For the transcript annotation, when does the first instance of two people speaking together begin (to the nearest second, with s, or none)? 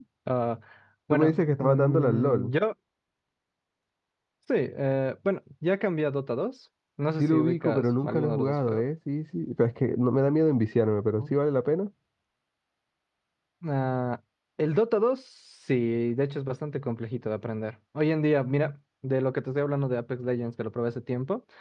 1 s